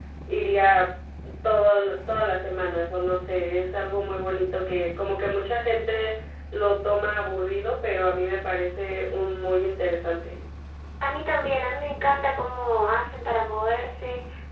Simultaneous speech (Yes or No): No